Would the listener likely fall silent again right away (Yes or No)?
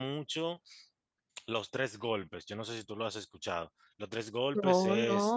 Yes